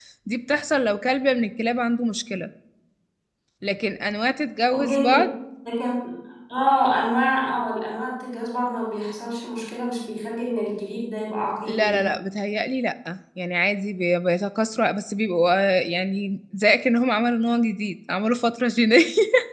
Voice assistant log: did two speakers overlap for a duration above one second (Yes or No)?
No